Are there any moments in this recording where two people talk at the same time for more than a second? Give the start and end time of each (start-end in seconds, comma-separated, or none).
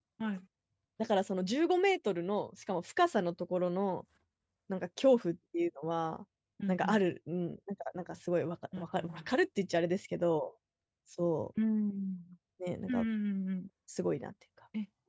none